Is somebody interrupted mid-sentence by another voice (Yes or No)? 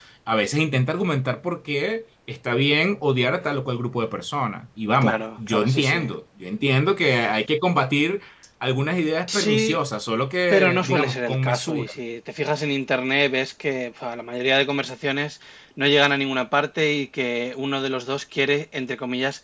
Yes